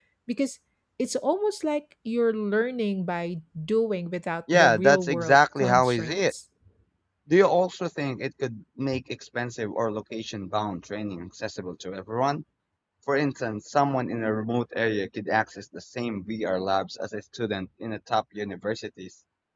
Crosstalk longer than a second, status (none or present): present